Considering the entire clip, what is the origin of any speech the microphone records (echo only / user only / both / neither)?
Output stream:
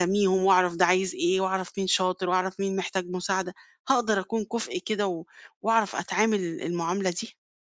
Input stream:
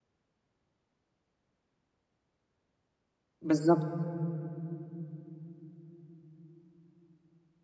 user only